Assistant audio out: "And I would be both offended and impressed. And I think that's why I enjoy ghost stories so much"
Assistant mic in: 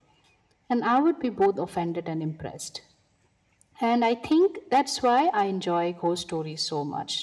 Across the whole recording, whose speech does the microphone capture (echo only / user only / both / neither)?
echo only